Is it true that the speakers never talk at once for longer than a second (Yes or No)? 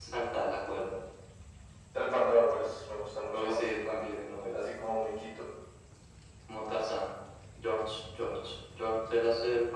Yes